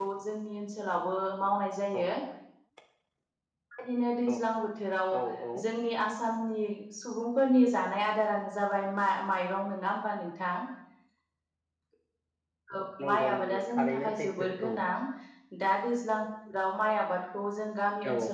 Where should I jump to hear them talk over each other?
13.1 s

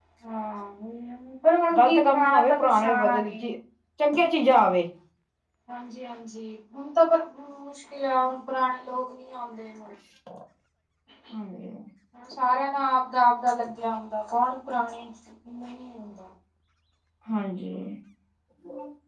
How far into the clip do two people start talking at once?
1.7 s

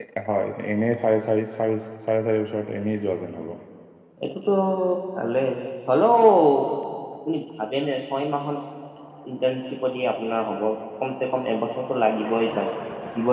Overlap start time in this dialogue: none

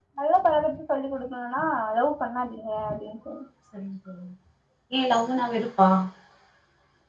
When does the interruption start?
none

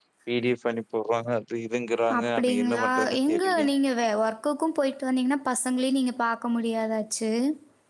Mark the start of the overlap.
2.1 s

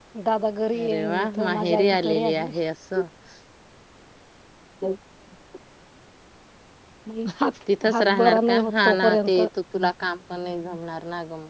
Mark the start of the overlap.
0.8 s

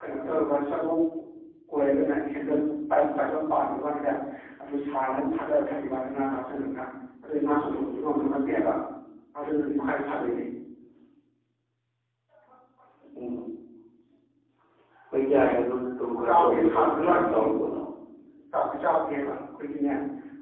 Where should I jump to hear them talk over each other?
16.3 s

